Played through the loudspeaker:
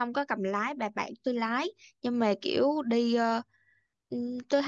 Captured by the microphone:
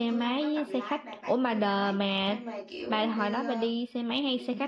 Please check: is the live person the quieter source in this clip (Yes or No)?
No